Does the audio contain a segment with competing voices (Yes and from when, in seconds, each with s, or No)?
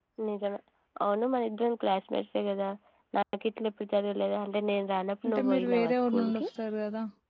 Yes, from 5.2 s